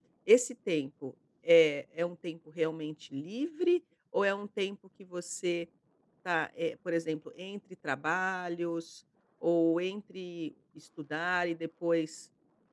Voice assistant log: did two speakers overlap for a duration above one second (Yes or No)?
No